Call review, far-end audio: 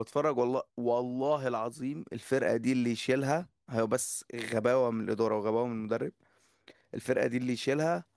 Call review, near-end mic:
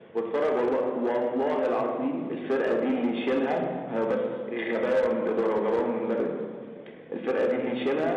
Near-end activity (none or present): none